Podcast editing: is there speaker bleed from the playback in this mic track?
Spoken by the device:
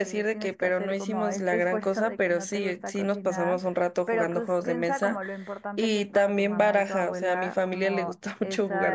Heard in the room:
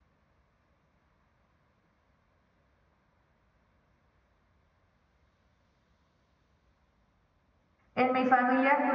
No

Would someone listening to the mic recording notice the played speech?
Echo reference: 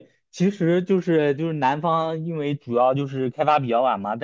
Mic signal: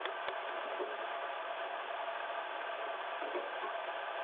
No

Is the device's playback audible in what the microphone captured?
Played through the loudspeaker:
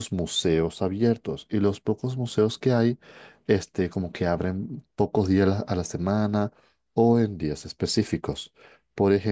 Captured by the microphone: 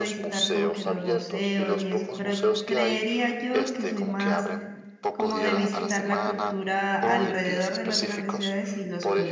Yes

